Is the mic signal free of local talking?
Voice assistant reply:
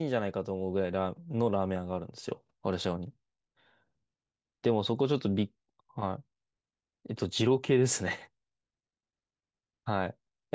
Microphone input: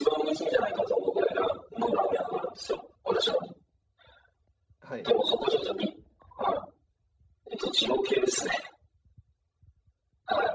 No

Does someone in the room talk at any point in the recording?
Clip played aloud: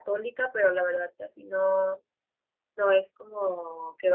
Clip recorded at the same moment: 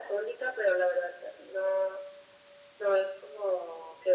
No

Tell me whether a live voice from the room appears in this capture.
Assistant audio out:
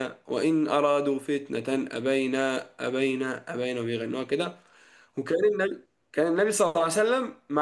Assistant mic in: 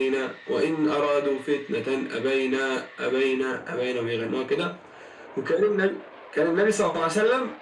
No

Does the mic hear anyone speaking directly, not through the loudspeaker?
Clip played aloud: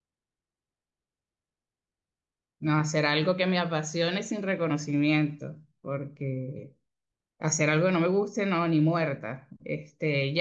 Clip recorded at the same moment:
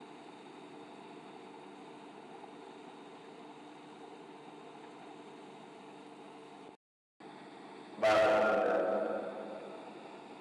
Yes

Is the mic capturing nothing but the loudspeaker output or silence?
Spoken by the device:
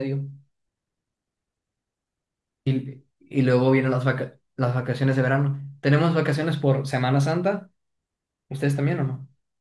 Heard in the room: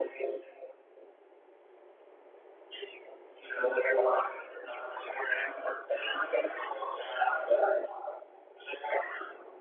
Yes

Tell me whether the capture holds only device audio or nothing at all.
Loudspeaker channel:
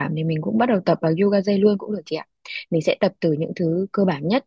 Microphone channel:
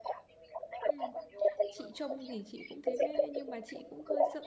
No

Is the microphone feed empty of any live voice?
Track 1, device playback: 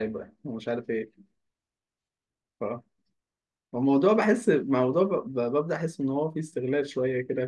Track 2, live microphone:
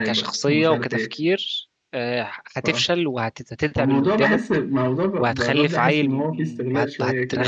No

